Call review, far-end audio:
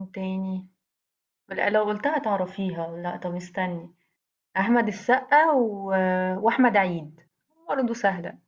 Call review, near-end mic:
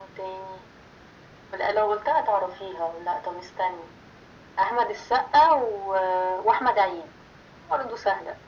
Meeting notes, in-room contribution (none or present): none